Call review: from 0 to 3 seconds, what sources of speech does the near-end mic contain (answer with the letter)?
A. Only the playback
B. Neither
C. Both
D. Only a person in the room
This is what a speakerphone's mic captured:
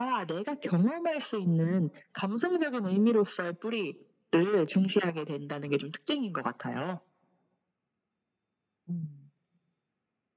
A